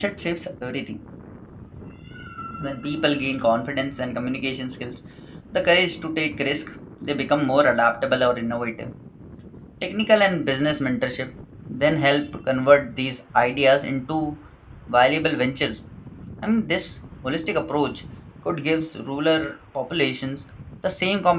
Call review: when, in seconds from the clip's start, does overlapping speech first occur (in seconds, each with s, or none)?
none